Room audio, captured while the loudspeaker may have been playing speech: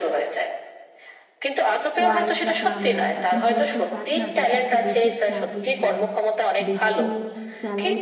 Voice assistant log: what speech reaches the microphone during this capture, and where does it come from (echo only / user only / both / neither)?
both